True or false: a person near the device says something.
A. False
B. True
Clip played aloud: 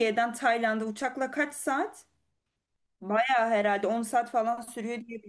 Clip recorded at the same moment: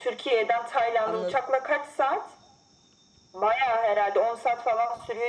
B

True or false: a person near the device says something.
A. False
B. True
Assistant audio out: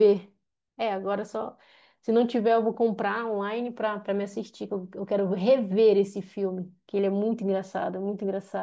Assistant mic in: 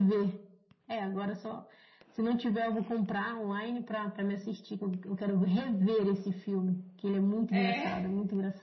B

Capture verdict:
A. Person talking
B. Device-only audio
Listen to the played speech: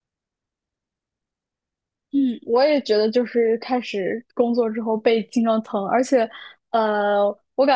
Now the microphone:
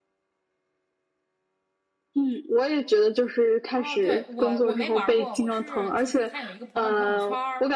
A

